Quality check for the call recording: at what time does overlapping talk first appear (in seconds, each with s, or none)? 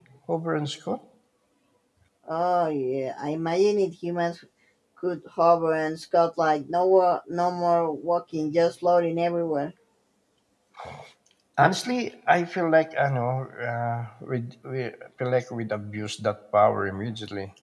none